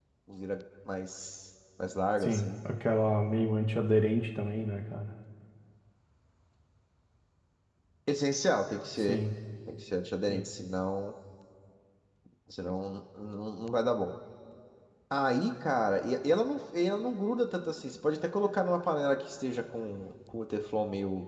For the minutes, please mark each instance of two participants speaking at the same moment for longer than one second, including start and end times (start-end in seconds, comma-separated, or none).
none